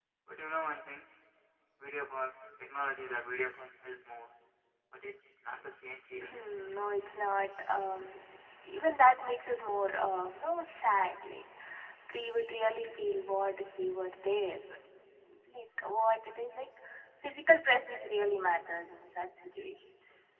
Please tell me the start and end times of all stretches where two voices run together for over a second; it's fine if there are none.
none

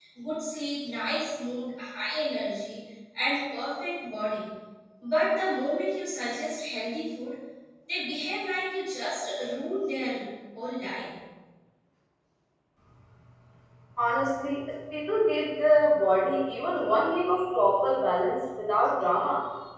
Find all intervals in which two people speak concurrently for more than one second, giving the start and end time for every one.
none

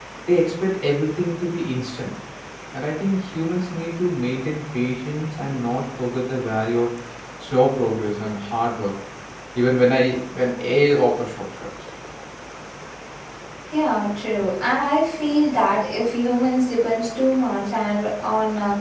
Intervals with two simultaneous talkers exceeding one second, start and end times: none

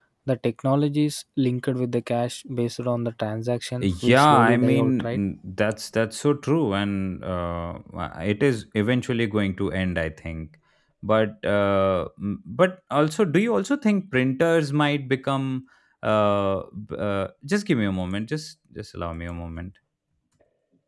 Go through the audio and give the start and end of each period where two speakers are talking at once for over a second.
3.8-5.2

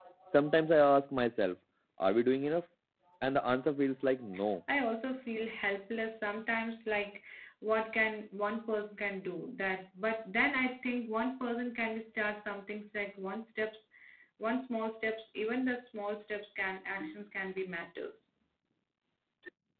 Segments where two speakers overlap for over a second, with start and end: none

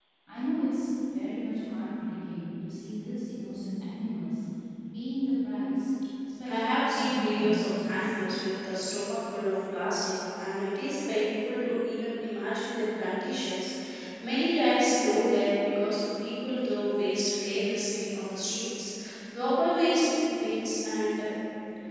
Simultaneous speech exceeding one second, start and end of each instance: 6.5-8.1

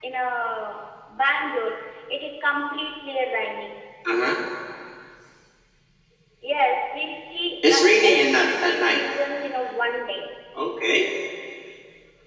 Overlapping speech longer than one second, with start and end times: 7.7-9.0

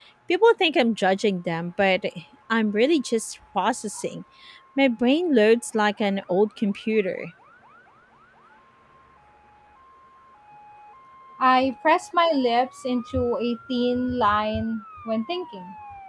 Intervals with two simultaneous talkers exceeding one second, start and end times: none

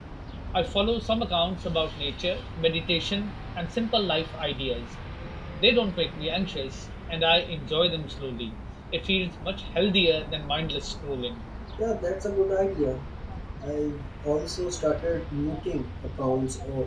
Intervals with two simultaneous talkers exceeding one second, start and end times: none

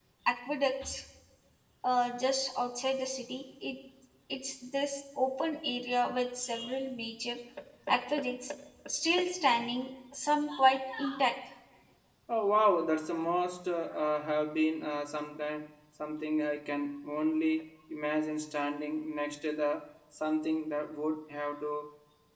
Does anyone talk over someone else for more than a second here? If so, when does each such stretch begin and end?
none

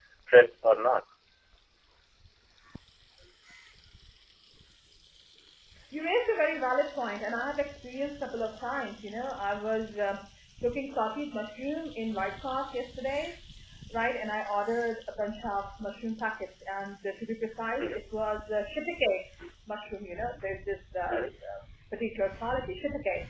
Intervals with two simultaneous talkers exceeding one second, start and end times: none

